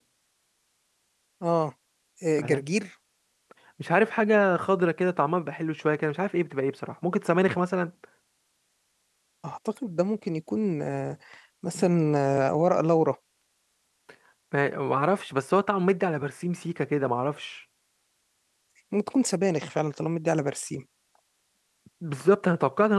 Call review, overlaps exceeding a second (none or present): none